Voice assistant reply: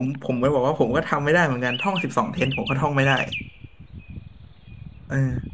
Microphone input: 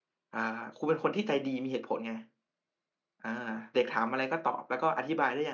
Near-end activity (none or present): present